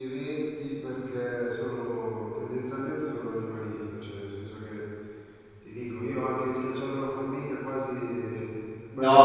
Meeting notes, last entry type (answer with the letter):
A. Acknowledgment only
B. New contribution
B